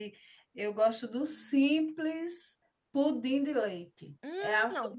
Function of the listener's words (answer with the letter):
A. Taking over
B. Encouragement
A